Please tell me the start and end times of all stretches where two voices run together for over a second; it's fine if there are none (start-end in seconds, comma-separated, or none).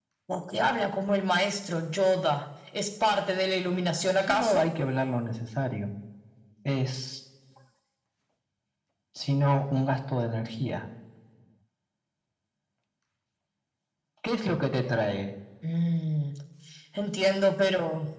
none